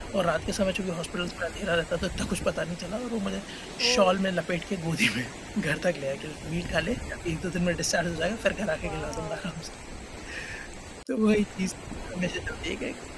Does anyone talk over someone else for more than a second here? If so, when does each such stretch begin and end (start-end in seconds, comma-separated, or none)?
8.2-9.5